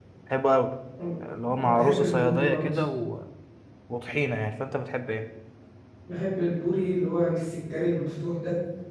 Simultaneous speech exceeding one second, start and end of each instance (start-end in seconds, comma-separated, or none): 1.5-2.8